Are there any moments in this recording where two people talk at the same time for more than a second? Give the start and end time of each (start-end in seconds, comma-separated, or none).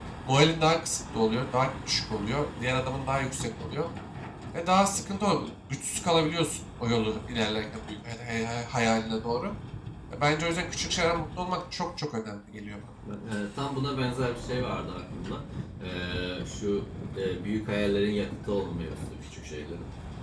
none